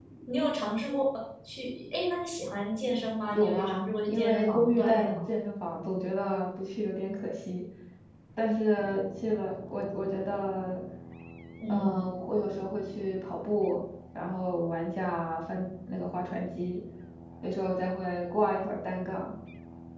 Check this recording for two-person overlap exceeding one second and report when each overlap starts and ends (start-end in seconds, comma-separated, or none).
3.3-5.1